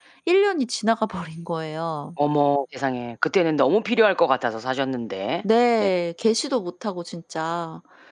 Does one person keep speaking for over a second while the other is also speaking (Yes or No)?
No